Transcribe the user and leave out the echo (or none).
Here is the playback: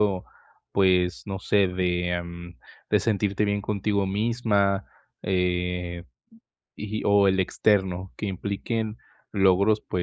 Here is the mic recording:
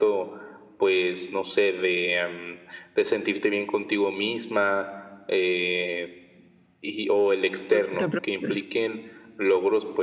No te preocupes,